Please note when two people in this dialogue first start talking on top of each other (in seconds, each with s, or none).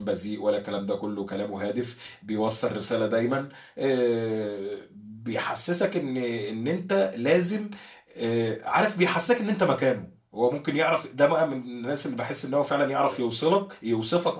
none